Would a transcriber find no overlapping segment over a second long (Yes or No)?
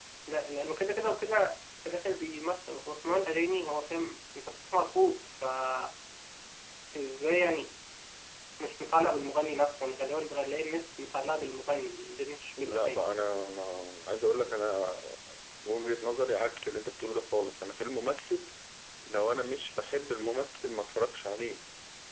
Yes